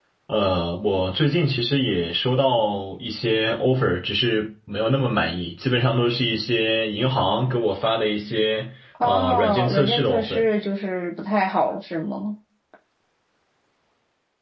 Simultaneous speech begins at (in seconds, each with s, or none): 8.9 s